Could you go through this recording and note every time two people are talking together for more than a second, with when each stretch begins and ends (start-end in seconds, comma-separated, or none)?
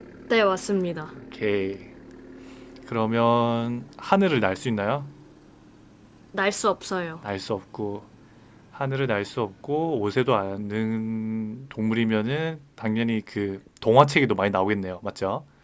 none